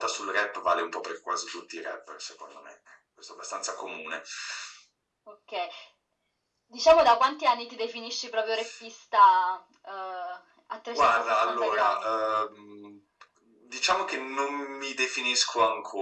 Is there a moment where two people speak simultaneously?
Yes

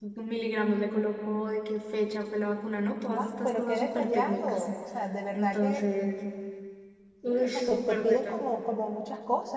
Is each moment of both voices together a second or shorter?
No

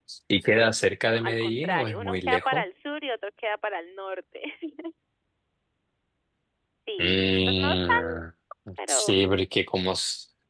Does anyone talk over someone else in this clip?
Yes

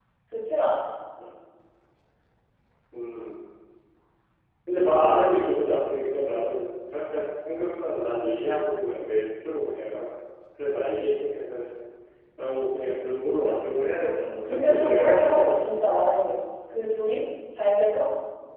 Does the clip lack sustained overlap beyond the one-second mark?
No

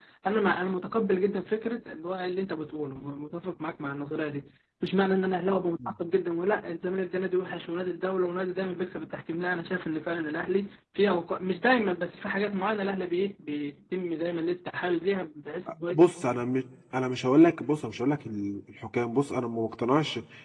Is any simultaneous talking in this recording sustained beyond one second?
No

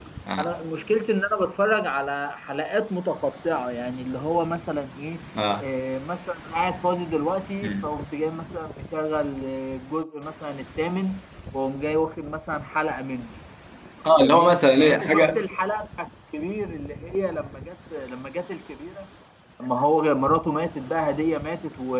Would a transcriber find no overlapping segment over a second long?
No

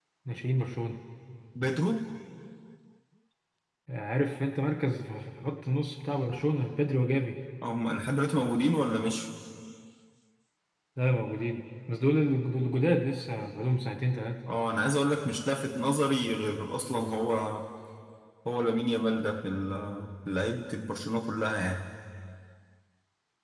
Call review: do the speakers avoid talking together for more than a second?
Yes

